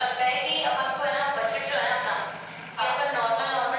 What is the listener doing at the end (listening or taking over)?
listening